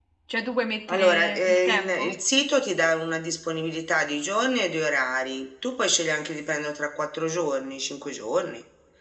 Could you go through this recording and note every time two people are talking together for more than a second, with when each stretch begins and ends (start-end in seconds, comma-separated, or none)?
0.9-2.1